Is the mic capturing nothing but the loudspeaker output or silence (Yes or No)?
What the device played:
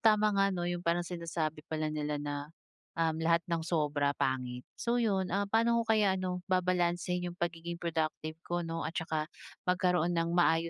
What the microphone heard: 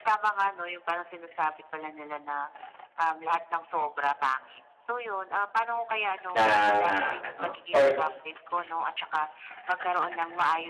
No